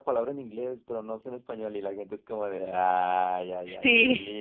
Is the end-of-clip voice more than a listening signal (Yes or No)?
No